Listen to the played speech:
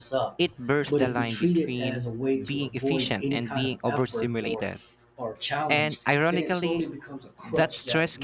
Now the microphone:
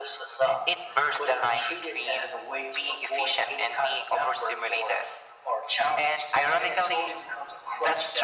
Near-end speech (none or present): none